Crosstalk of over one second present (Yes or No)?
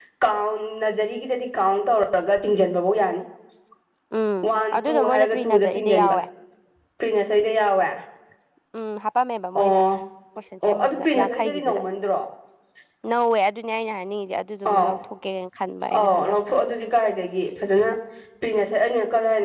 Yes